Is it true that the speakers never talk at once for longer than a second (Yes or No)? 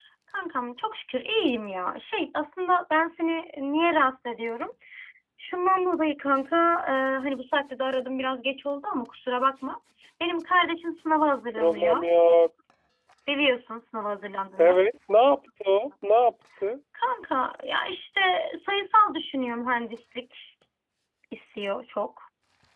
Yes